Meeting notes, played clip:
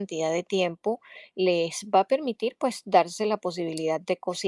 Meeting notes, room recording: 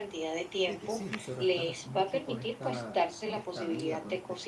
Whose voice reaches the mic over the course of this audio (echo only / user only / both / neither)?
both